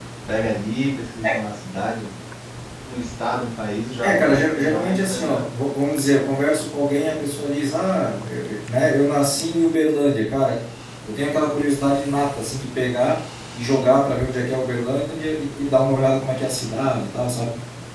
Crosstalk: present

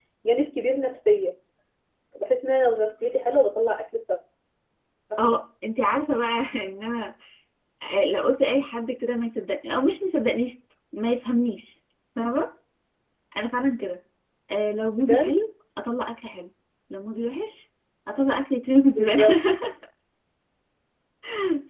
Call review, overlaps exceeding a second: none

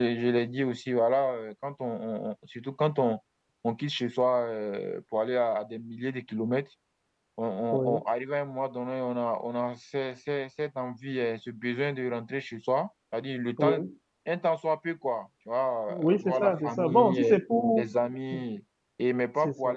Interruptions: present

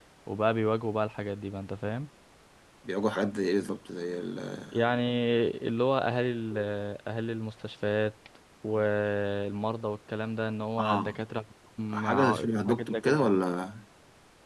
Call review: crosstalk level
present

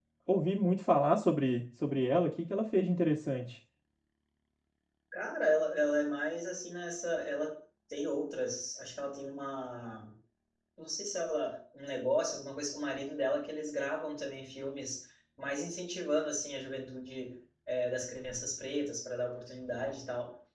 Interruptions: none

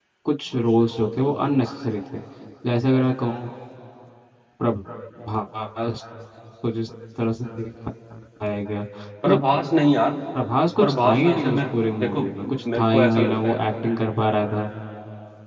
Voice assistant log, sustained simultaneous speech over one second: present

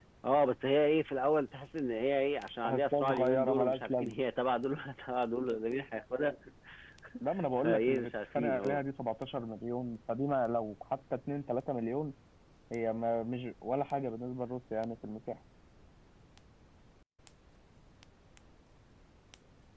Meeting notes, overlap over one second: present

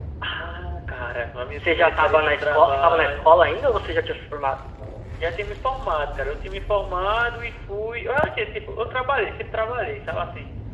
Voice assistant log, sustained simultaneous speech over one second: present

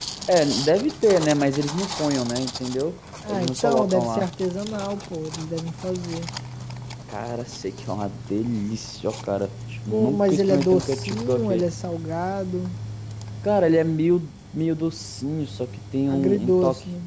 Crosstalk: present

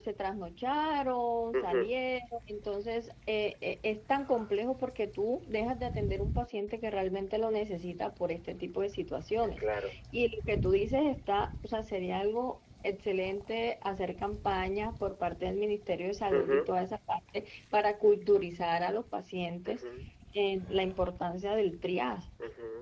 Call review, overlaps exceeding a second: none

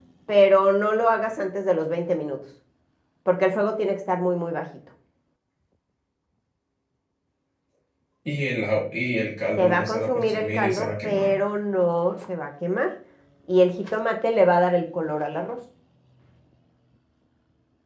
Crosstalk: present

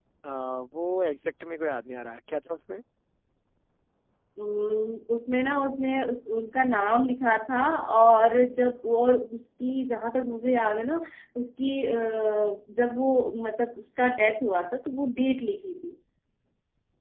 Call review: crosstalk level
none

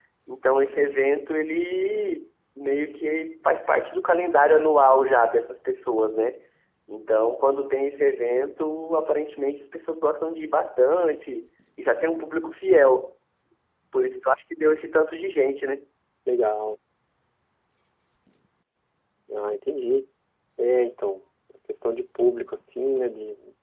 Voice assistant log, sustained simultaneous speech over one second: none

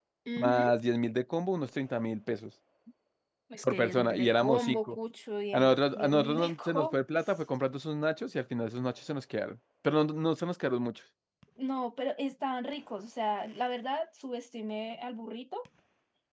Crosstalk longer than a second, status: present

